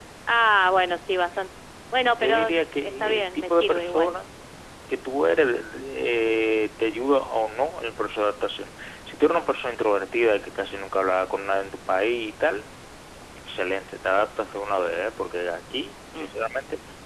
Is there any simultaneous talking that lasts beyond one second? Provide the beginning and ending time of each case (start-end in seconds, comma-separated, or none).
2.1-4.2